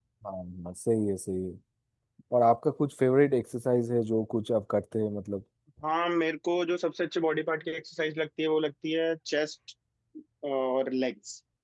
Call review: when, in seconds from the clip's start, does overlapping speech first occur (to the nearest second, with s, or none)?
none